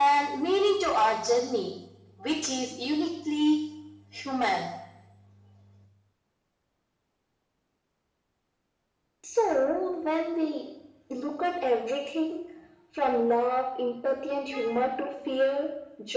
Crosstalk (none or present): none